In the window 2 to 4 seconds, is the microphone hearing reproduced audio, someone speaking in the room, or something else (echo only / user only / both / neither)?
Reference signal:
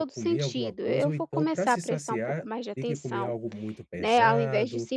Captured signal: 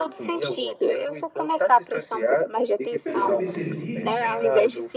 both